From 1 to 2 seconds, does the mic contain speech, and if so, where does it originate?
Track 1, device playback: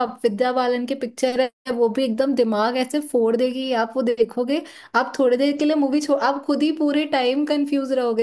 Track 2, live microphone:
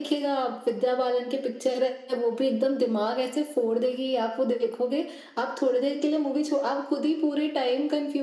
echo only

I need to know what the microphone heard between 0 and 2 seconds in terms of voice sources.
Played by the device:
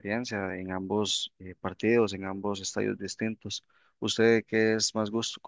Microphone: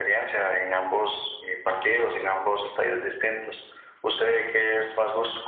echo only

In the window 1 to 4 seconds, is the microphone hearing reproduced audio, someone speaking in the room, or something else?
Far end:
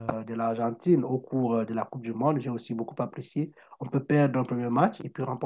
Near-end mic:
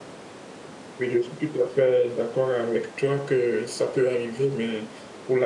user only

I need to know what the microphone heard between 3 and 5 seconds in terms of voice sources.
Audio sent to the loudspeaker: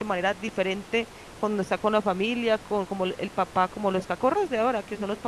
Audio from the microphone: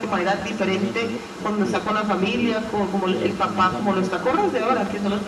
both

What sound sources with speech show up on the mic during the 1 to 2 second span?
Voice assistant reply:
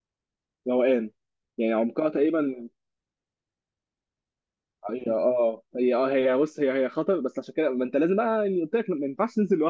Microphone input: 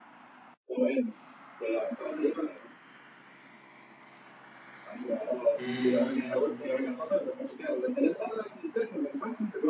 echo only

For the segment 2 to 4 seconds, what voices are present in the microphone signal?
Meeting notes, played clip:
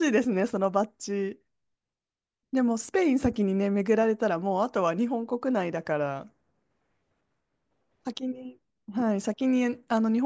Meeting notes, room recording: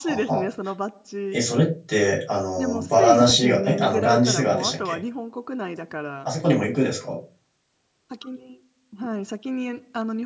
both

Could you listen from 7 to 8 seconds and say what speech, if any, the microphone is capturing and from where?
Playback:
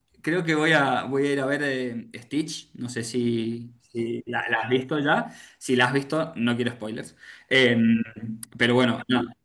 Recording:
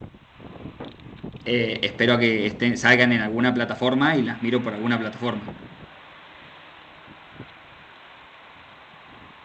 neither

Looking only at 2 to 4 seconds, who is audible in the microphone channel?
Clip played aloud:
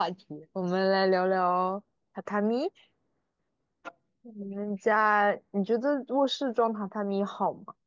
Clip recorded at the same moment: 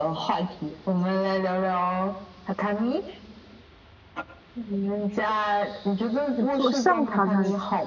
echo only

